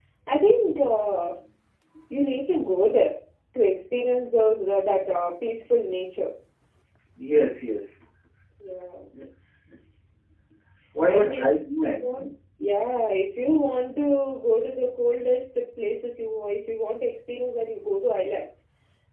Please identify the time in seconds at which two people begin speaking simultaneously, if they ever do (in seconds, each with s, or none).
11.1 s